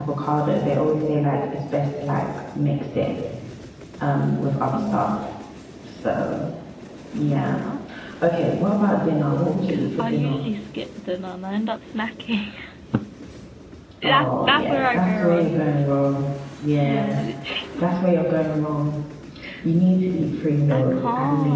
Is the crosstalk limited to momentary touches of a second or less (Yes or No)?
No